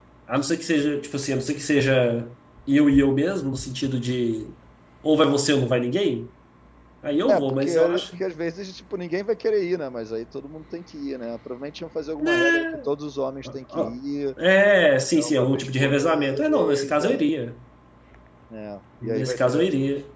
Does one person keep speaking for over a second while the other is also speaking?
Yes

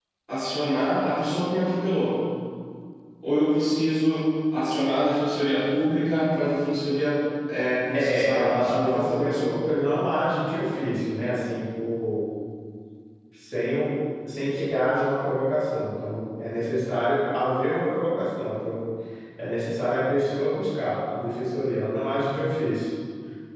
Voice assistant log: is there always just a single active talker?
No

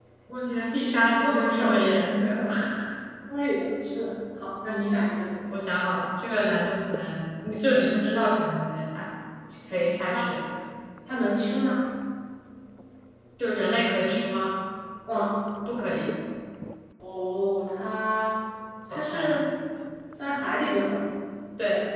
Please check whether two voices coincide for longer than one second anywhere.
Yes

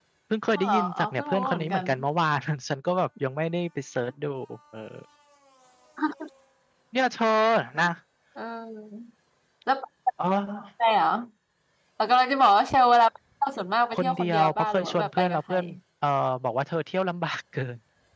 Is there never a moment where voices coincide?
No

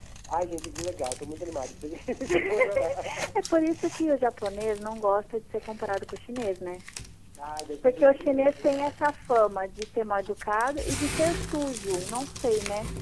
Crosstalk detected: Yes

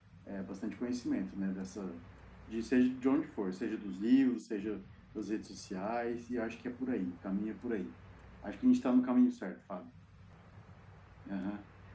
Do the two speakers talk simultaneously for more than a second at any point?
No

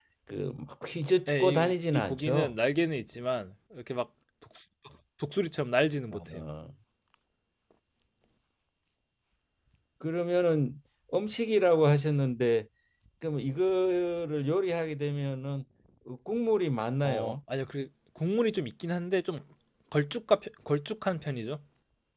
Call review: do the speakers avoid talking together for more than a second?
No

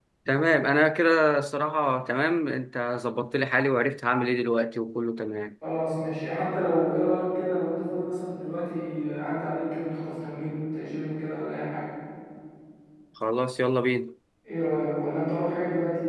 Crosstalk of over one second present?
No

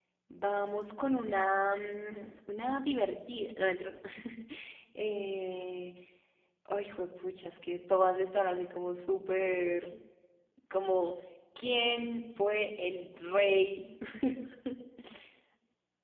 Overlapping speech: No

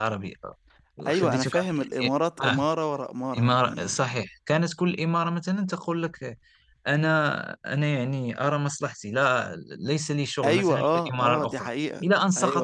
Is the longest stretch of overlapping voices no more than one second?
No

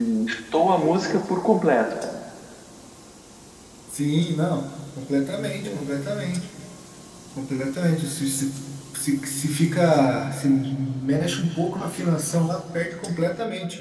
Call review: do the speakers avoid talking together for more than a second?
Yes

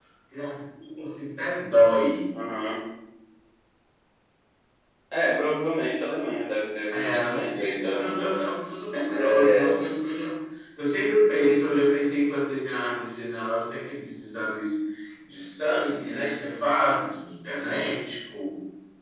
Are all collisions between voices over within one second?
No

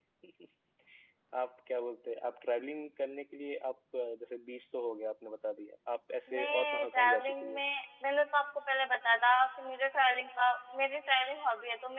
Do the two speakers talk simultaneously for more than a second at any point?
Yes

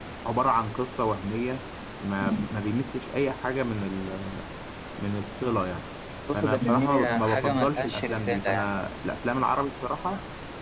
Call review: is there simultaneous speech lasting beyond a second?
Yes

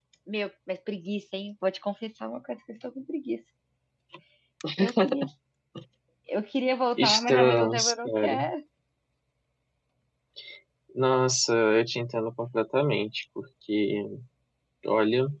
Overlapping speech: Yes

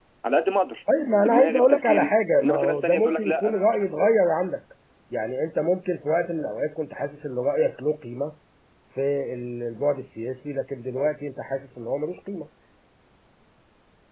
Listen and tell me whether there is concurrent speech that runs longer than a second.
Yes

